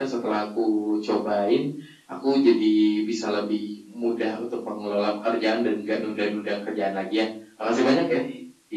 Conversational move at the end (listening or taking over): taking over